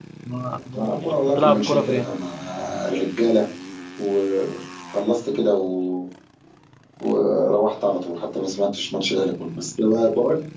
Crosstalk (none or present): present